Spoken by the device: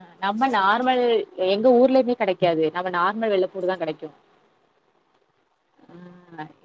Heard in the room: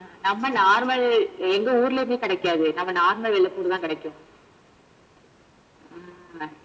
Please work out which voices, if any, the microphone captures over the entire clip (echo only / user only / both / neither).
echo only